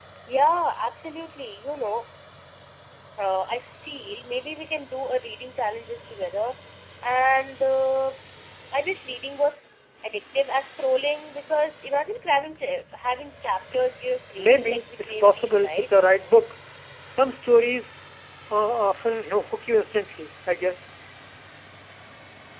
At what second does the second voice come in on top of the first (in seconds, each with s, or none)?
14.4 s